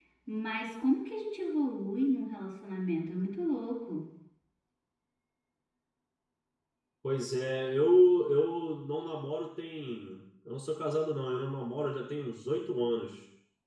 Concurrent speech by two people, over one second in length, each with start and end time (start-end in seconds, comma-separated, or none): none